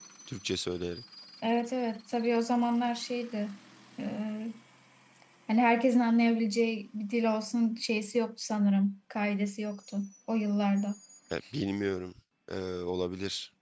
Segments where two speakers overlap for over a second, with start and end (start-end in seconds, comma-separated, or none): none